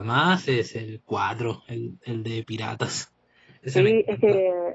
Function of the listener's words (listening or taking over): taking over